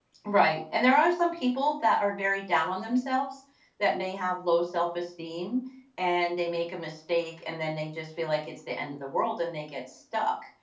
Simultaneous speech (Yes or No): No